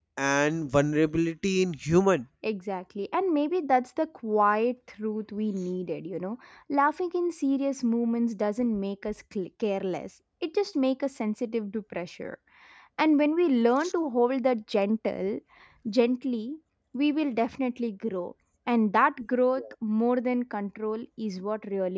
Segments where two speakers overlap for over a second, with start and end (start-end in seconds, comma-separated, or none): none